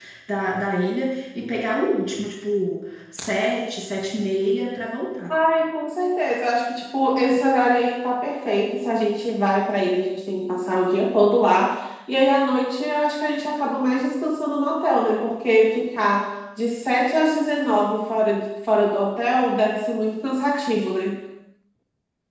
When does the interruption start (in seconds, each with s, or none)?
none